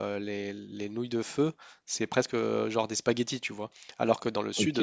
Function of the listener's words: listening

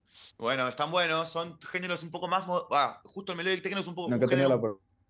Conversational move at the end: taking over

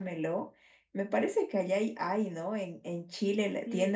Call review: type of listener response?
taking over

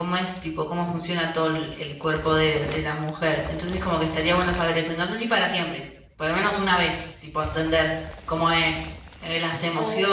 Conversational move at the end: listening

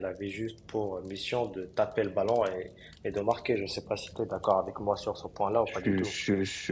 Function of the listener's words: taking over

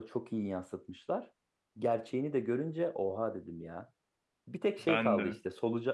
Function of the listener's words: listening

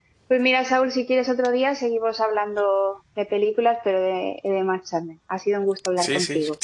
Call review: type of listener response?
taking over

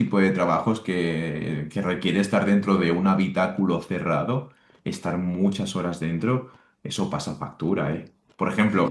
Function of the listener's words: listening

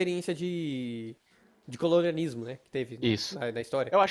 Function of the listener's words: taking over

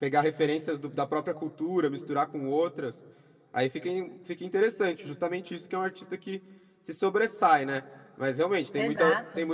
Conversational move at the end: listening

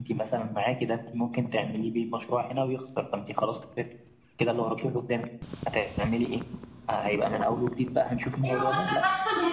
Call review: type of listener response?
taking over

